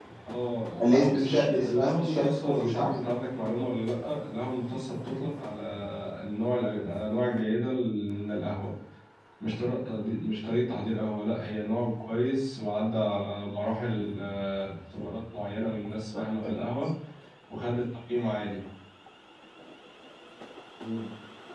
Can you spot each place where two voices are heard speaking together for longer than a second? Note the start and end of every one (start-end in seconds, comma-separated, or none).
0.8-2.9